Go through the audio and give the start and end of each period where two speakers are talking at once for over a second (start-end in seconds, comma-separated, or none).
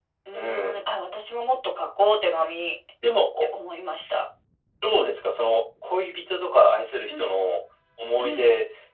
none